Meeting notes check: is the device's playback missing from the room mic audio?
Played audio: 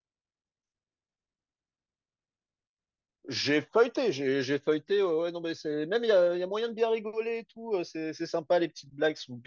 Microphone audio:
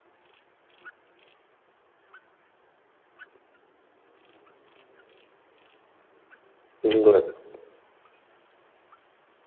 Yes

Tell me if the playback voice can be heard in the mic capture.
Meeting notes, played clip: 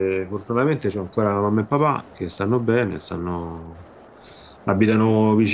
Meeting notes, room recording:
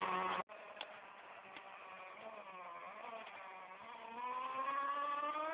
No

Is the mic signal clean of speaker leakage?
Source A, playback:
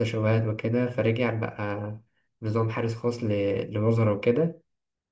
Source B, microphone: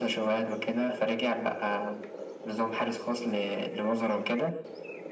No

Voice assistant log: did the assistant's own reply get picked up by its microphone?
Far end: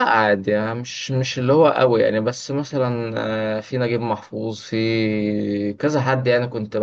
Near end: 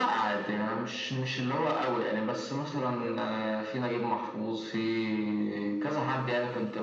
Yes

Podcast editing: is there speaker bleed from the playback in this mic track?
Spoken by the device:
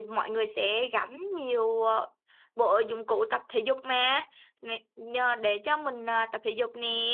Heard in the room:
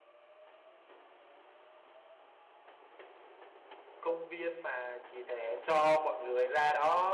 No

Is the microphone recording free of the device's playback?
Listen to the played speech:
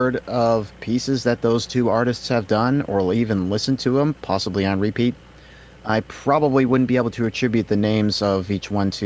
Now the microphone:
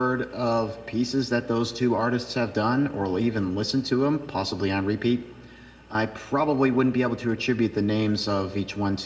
No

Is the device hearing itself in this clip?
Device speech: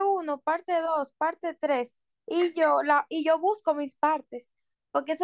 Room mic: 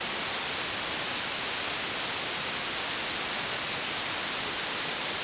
No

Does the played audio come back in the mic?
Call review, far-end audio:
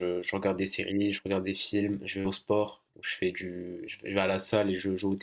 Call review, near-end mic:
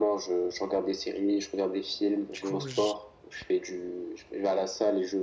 Yes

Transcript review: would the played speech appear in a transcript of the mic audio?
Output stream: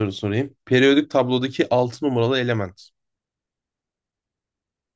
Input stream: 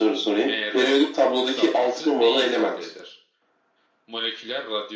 Yes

